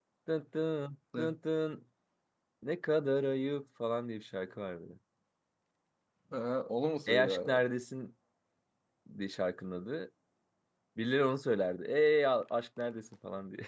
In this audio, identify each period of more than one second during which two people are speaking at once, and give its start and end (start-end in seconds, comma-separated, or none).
none